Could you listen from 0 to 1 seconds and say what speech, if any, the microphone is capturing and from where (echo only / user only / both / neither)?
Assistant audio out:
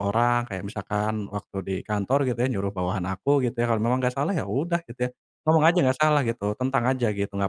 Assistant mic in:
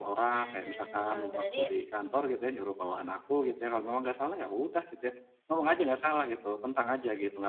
both